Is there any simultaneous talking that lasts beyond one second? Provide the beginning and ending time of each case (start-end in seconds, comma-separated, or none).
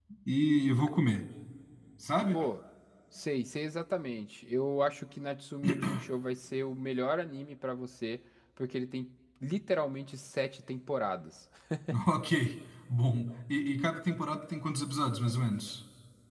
none